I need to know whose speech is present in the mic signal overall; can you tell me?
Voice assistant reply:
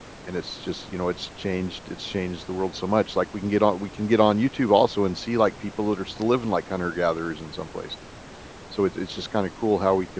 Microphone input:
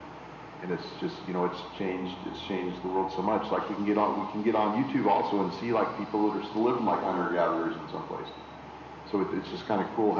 echo only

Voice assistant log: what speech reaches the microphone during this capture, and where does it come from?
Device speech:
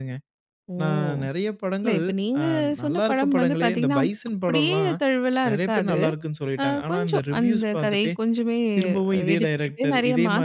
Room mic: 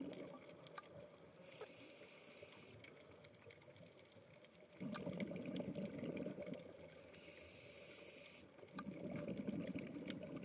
neither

